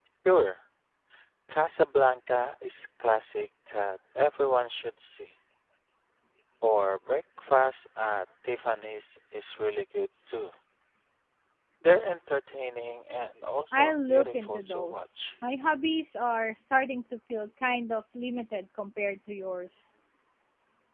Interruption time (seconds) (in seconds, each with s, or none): 13.7 s